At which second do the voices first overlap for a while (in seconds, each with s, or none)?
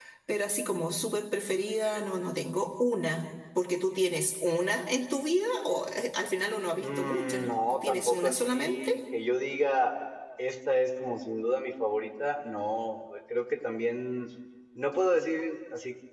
6.8 s